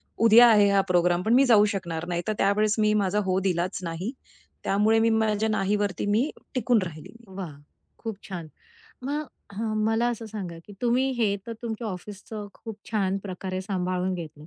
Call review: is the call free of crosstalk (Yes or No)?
Yes